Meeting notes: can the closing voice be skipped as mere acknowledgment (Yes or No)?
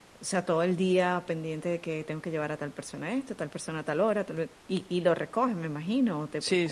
No